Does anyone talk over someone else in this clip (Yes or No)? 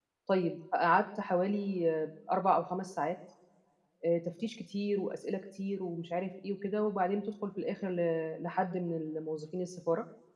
No